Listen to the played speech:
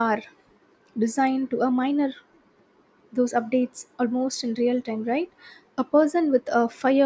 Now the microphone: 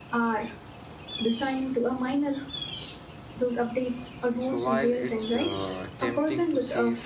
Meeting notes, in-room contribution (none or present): present